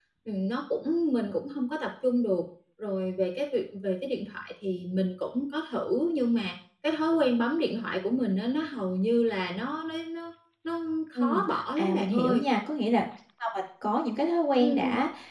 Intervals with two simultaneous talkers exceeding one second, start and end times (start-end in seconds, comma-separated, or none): 11.2-12.4